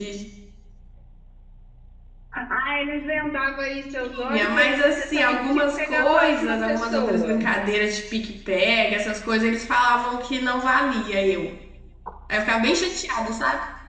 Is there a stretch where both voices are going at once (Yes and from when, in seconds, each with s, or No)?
Yes, from 4.1 s